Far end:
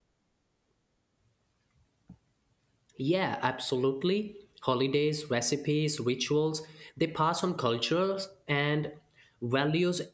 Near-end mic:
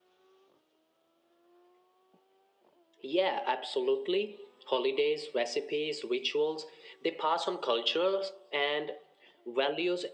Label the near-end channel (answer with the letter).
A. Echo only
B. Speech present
A